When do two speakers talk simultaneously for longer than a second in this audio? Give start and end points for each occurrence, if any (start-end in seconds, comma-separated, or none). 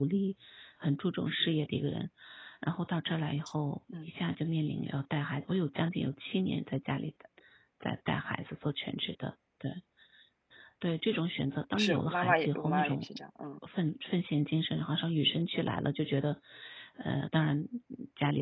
11.8-13.1